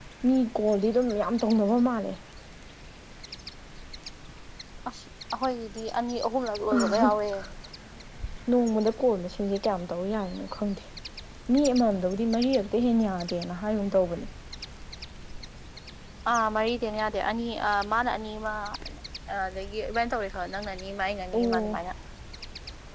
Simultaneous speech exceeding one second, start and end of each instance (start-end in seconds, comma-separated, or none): none